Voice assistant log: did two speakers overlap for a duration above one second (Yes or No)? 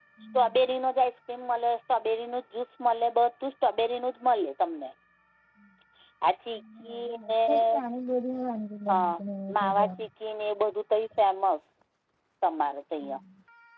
No